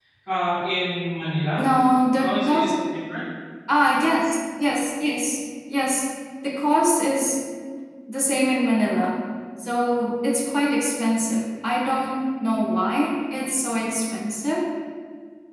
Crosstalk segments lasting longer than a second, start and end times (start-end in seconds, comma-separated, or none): none